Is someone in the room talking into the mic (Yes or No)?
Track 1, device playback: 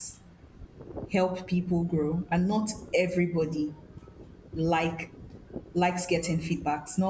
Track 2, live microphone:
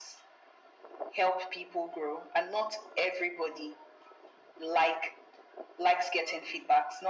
No